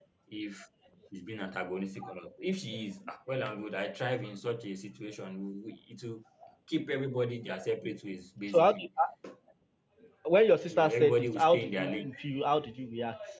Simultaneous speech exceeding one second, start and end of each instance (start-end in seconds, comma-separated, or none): 10.7-12.1